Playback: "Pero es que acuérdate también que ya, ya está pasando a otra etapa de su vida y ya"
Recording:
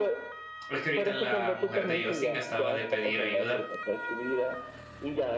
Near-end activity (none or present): present